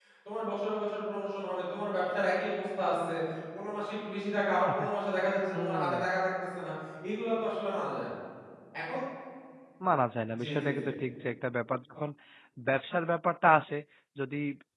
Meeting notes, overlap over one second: none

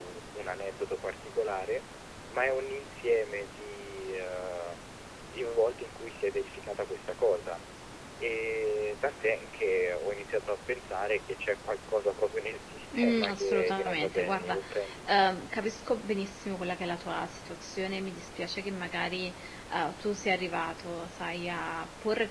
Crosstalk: present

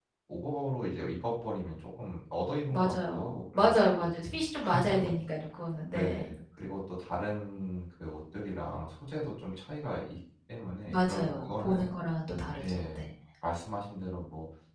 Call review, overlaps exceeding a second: present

